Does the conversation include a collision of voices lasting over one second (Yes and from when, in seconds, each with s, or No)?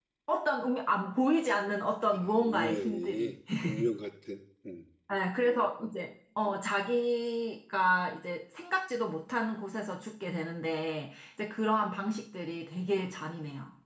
Yes, from 2.1 s